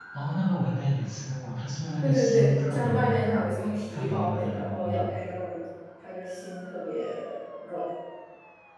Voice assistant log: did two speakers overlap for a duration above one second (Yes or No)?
Yes